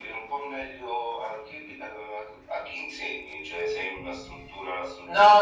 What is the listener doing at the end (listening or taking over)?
taking over